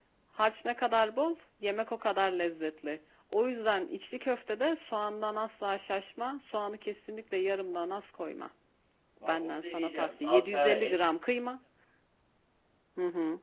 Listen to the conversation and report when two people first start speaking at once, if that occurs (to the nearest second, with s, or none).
9 s